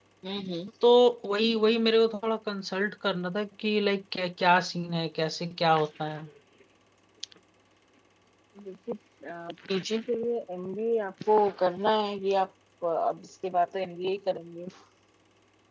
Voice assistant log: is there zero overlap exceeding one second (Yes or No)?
Yes